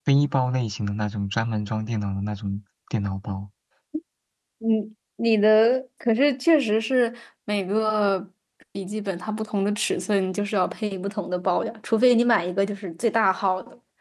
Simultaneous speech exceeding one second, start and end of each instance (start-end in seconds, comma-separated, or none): none